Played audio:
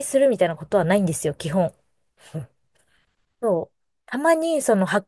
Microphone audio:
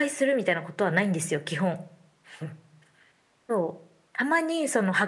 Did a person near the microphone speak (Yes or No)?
No